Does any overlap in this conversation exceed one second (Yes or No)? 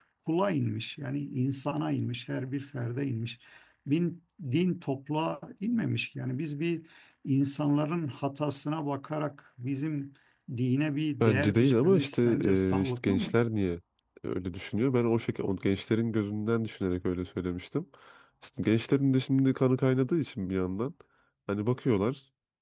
Yes